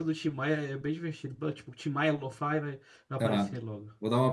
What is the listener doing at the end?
taking over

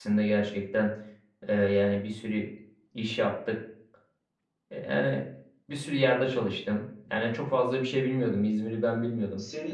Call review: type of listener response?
taking over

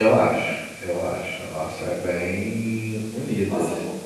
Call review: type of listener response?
taking over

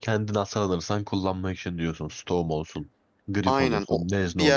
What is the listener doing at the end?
taking over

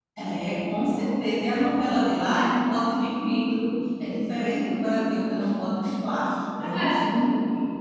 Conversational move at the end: taking over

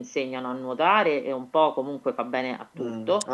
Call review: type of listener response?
taking over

